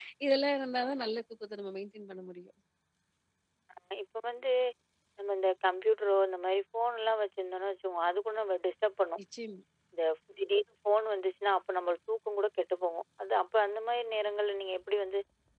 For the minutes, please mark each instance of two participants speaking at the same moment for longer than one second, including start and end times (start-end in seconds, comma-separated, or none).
none